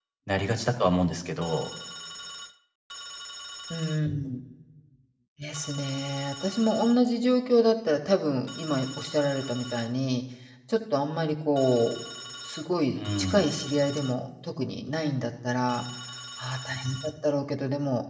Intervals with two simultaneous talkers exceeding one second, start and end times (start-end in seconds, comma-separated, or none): none